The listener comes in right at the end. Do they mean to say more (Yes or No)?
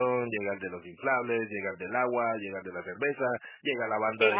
No